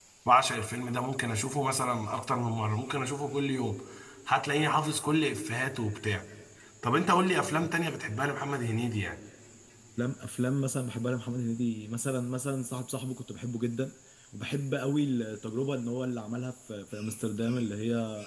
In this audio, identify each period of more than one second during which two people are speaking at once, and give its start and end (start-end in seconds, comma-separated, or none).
none